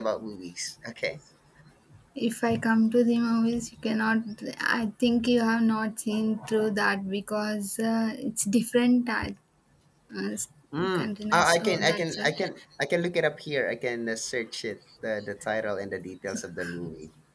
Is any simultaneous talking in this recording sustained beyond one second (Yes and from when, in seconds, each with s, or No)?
Yes, from 11.0 s